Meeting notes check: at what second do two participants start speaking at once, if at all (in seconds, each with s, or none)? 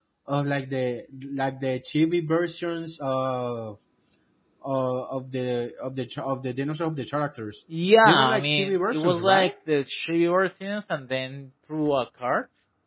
8.0 s